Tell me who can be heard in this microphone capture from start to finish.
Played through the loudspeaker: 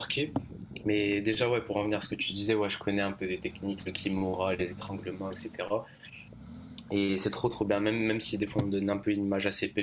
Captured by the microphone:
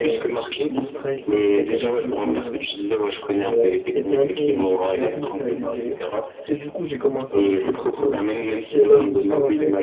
both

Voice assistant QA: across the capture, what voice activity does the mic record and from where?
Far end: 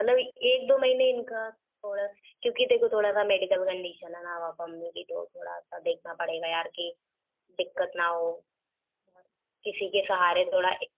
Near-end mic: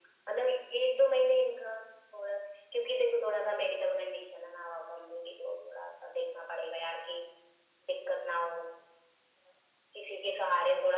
echo only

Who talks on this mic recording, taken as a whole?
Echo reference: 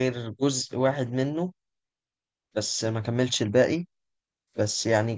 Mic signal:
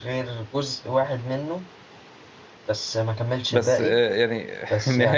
both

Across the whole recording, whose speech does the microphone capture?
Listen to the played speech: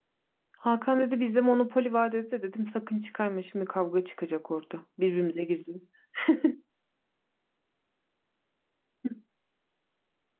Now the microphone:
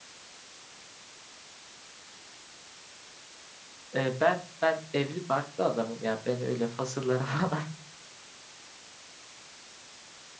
user only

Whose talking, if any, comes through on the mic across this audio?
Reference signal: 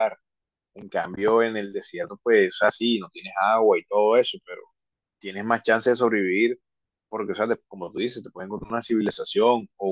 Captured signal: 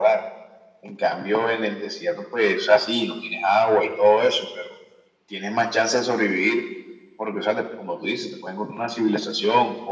echo only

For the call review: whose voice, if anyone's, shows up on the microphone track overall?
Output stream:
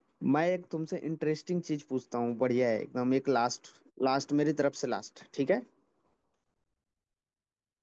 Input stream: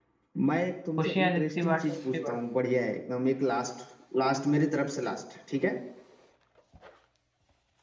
both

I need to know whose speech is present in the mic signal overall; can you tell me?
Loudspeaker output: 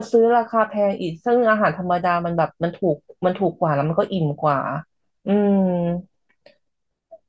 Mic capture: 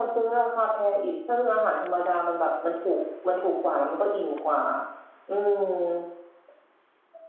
echo only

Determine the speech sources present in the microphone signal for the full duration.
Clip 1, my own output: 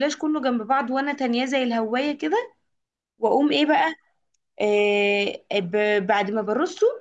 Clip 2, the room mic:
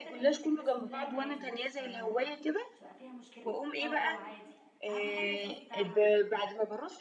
both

